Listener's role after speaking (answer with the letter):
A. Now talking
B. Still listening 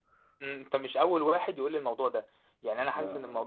B